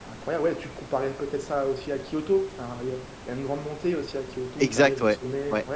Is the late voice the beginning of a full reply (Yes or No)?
Yes